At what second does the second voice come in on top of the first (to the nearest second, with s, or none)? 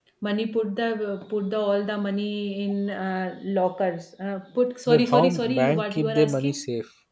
5 s